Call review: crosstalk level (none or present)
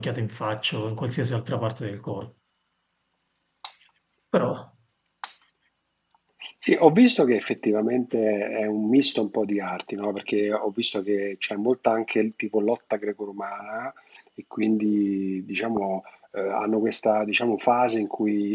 none